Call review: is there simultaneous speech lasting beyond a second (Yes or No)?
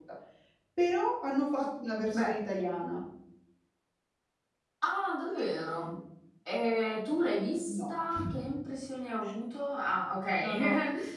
No